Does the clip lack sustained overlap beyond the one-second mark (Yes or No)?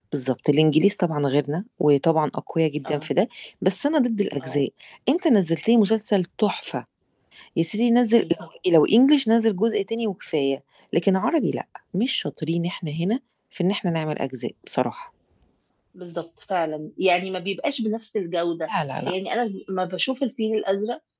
Yes